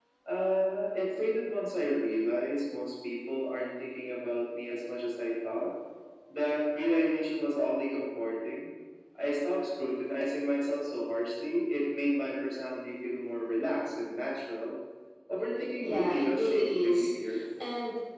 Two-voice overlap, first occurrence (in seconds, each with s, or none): 15.8 s